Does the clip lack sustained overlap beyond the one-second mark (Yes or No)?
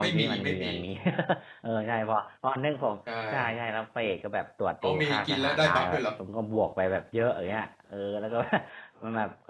No